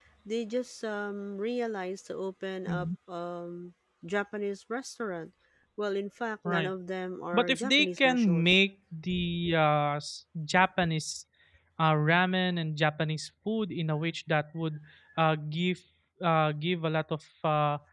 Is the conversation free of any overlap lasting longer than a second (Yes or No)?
No